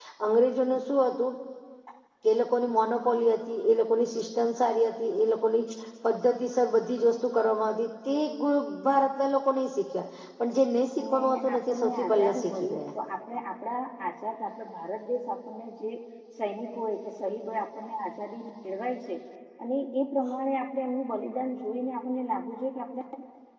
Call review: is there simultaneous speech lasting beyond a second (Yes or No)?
Yes